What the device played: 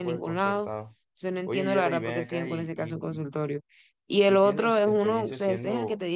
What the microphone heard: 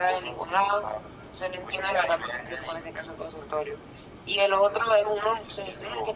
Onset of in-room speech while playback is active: none

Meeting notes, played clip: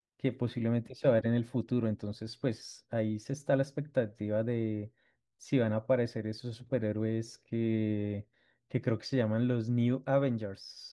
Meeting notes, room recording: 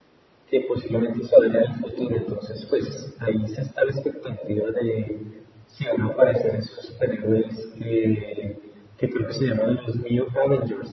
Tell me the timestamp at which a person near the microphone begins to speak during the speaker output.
none

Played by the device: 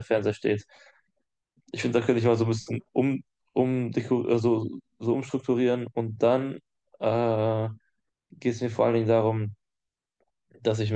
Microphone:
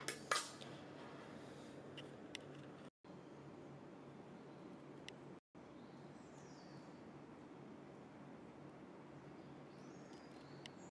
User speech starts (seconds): none

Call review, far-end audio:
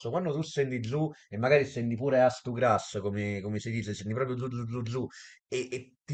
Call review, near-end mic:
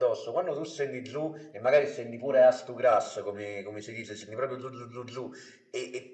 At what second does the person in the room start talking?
none

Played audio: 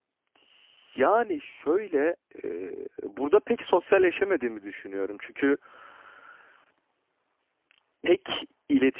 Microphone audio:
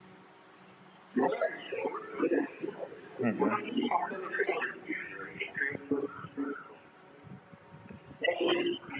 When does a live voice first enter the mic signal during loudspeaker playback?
3.2 s

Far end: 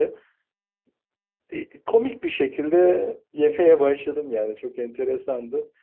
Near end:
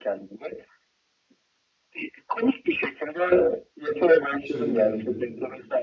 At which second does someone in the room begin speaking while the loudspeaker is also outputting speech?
4.4 s

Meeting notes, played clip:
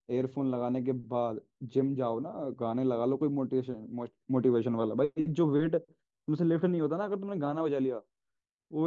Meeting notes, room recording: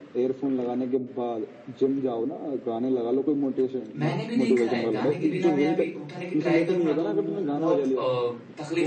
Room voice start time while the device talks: 4.0 s

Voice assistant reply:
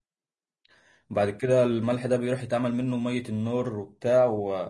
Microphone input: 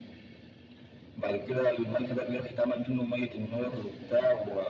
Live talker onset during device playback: none

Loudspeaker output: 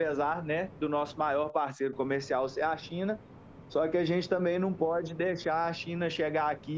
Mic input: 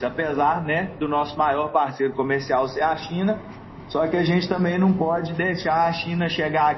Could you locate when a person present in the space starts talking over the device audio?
none

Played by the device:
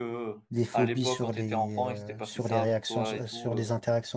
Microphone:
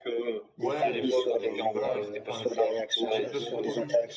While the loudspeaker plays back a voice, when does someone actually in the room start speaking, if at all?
0.6 s

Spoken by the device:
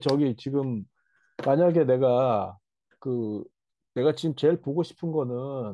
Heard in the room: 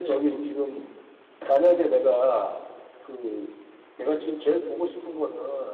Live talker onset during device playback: none

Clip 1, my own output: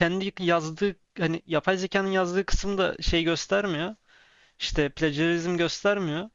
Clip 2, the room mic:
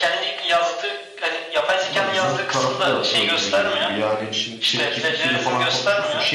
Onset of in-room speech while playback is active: 1.8 s

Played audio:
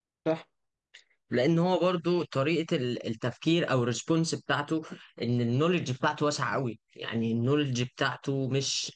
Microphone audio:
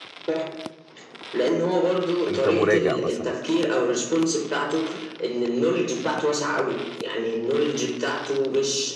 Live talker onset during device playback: 2.3 s

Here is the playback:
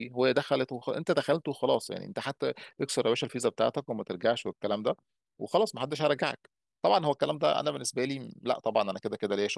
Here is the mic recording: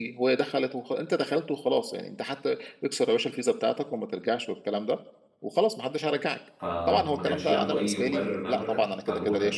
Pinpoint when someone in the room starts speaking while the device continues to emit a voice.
6.6 s

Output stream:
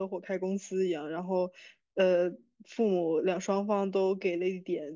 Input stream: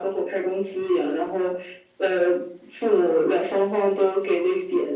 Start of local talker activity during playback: none

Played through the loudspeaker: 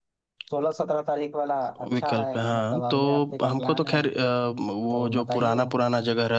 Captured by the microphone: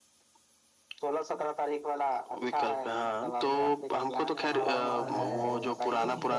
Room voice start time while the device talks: 4.5 s

